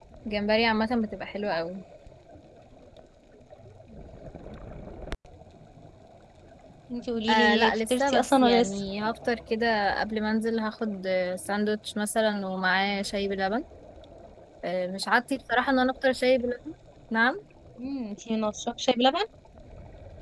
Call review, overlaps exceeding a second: present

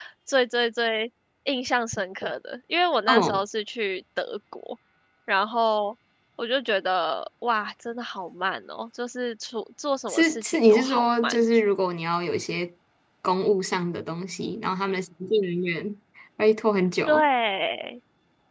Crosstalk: present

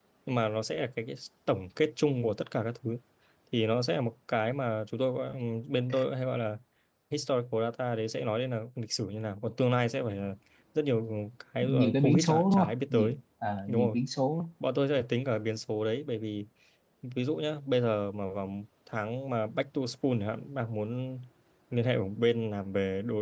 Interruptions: present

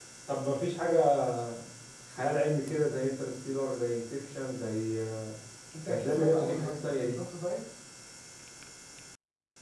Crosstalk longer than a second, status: present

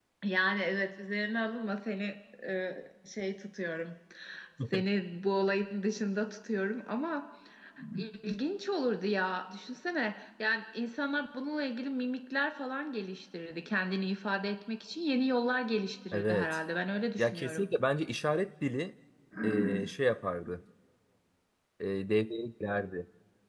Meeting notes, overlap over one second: none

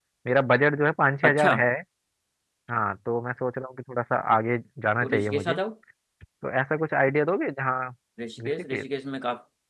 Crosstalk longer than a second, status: none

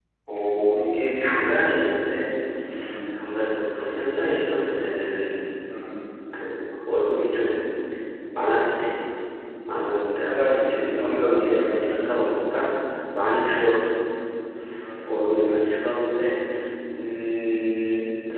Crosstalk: present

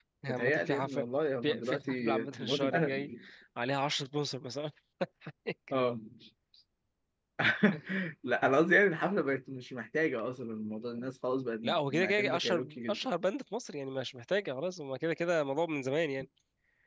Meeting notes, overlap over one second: present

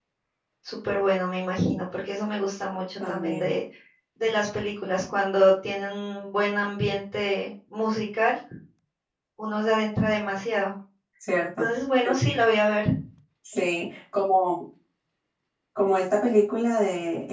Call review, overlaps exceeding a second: none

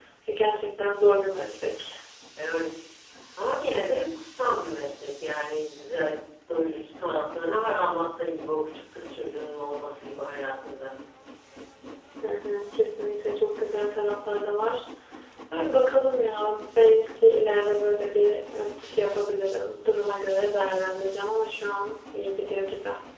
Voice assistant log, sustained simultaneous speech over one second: none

